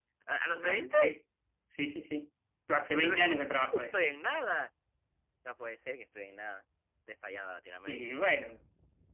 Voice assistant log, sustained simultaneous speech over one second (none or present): none